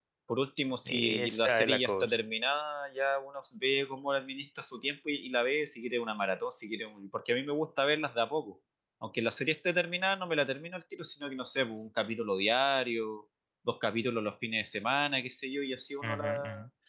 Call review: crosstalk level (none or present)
present